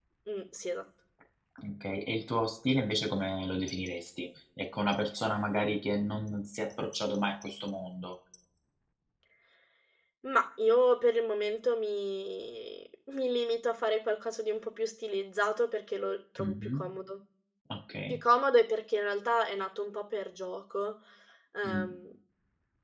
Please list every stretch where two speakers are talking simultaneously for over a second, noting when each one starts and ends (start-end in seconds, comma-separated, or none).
none